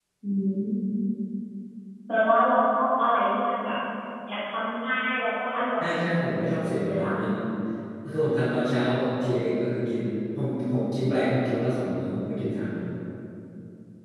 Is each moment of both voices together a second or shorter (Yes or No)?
No